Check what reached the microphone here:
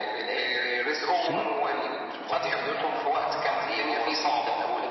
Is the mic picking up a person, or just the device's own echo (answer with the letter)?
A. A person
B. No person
A